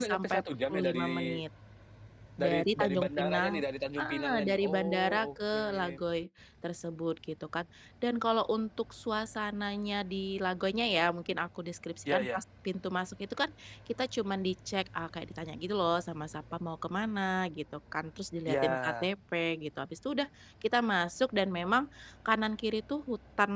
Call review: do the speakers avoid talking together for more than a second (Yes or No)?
No